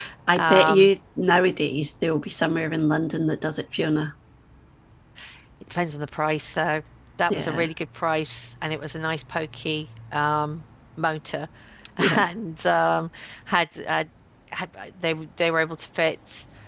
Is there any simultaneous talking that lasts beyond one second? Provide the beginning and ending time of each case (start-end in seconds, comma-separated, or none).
none